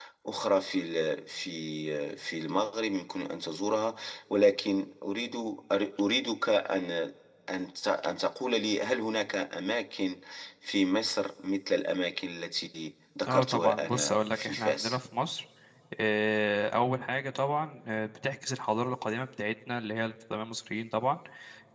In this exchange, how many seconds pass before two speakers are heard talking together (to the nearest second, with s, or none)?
13 s